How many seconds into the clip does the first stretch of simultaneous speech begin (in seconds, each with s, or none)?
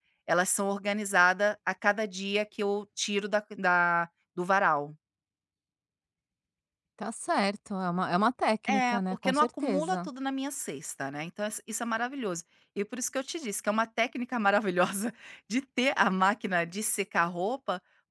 8.7 s